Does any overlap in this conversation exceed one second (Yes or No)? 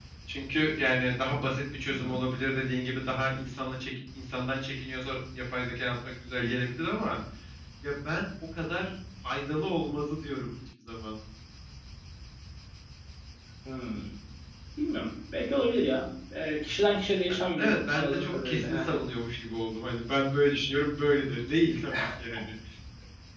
Yes